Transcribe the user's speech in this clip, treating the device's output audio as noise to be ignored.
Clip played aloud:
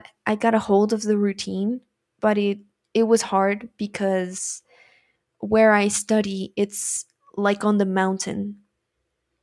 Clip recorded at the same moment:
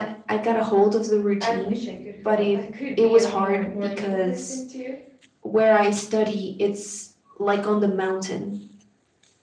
I wish I could ho- I could be a more morning person too

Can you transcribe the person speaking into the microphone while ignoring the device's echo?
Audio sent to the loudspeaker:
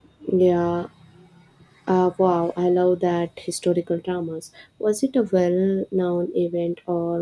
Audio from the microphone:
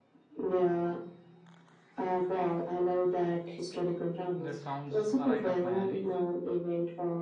That sounds right up my alley.

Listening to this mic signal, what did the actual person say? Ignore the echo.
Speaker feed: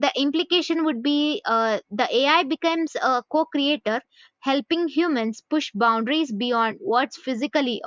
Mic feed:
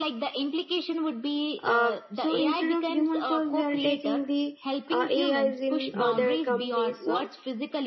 uh, so instead of human cost they are taking the uh, ais in uh, their companies so

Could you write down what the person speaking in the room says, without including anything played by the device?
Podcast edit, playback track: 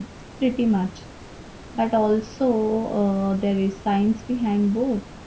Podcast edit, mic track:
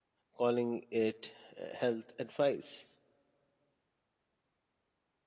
calling it uh, health advice.

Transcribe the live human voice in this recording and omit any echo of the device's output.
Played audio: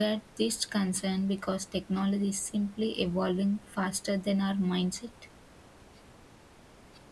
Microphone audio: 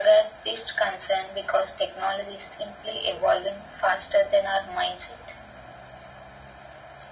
none

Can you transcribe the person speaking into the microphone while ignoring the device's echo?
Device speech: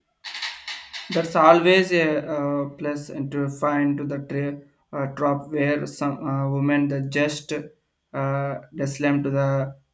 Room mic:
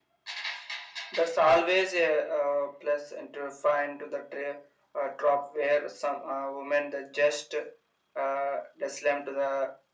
none

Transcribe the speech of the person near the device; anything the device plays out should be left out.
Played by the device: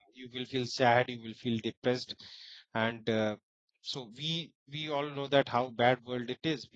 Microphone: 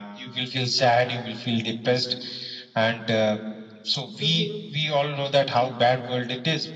hmm

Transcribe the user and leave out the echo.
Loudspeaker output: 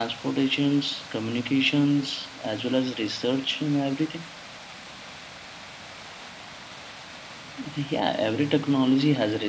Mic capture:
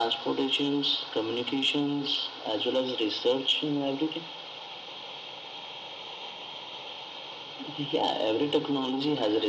none

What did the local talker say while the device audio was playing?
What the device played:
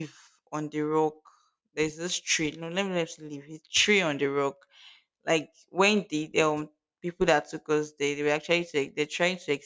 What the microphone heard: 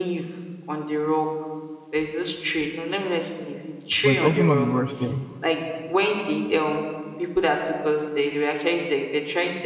but it's also not the worst thing.

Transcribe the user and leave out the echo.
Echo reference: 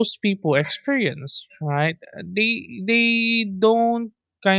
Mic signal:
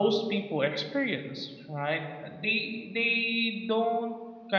none

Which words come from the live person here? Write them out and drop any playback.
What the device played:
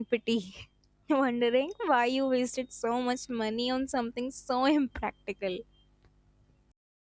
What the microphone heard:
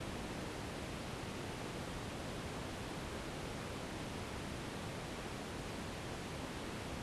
none

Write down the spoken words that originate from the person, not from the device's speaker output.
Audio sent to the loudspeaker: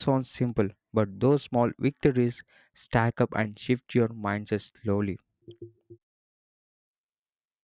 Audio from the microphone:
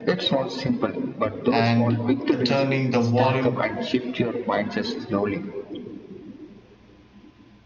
and uh, turning the volume

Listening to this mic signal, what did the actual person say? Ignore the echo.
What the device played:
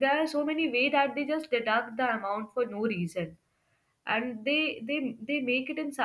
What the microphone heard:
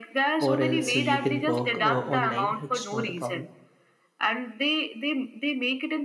or else uh, you can work uh, online it's not a problem

